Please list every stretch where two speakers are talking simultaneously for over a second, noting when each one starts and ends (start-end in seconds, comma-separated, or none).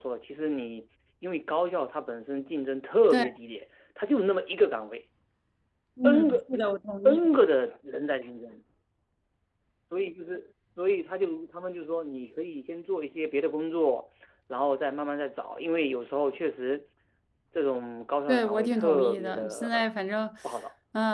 18.3-19.8